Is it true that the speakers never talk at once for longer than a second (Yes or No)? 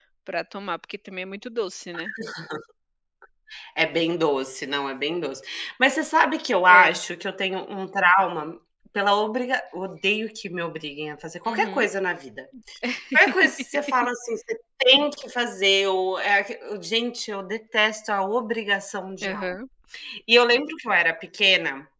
Yes